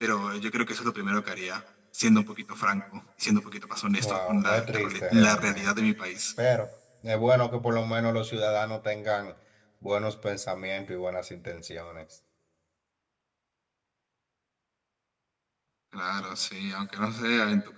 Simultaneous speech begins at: 4 s

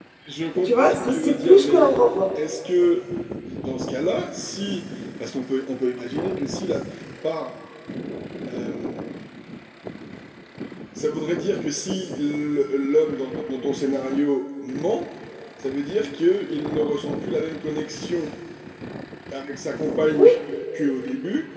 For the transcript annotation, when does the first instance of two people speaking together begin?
1 s

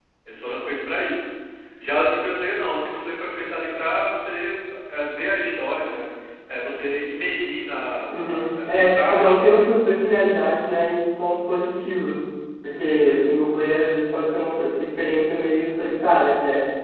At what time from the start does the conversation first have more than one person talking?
8 s

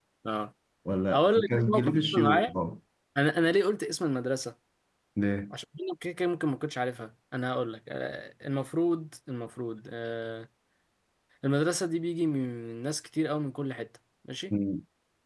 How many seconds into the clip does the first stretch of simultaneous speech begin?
1 s

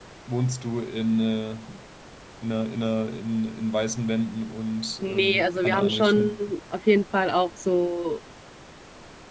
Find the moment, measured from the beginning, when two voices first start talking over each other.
5 s

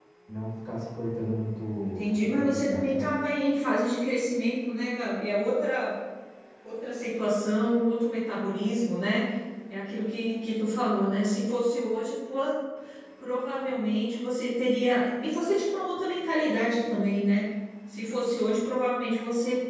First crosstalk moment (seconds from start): 2 s

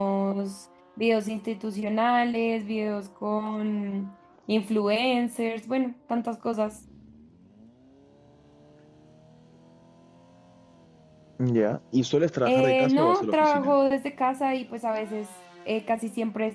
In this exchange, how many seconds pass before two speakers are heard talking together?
12 s

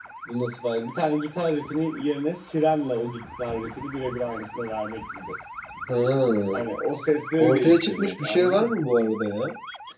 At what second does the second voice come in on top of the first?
7 s

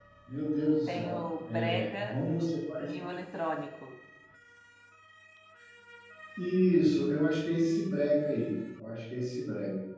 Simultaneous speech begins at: 1 s

